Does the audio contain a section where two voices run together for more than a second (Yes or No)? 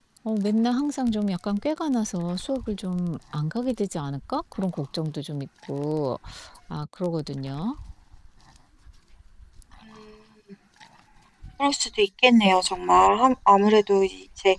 No